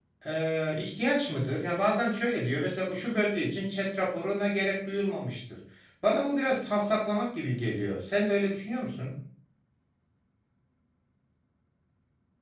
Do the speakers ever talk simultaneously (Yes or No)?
No